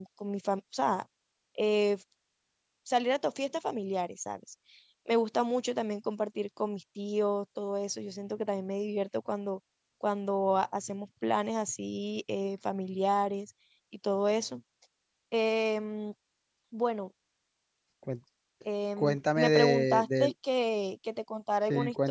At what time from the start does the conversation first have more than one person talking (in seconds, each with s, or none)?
19.0 s